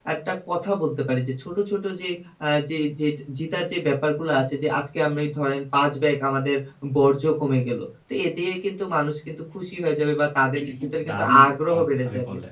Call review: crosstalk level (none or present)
present